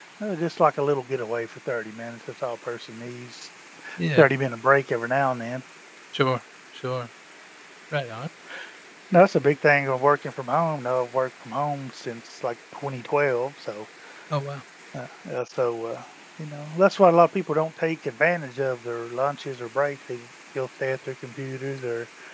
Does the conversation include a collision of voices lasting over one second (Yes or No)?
No